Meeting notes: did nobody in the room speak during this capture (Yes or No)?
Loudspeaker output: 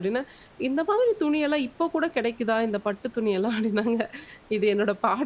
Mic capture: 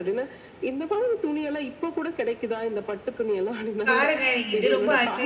No